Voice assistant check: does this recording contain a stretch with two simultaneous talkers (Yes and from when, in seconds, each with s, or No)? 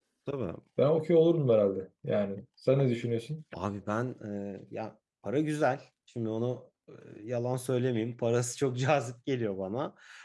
No